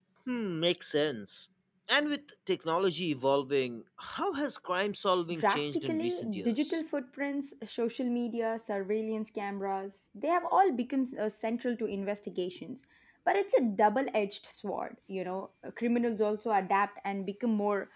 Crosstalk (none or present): present